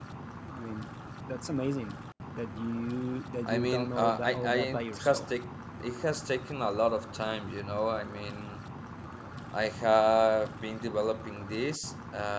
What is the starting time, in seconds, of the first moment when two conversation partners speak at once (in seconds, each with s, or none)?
3.5 s